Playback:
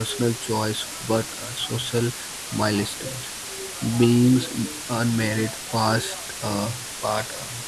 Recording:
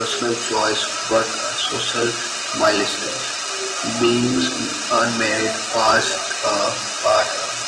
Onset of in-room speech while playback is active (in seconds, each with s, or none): none